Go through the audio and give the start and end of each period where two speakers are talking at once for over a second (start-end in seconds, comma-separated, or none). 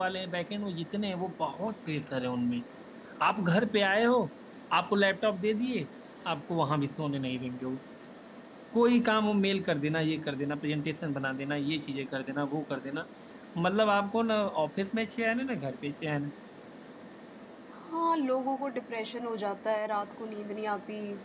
none